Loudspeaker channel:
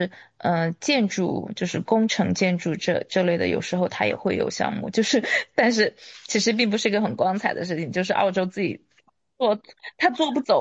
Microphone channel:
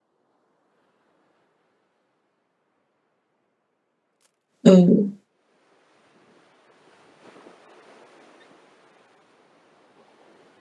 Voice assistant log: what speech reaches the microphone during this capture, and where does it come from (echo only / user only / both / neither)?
user only